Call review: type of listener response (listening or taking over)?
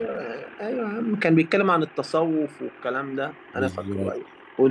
listening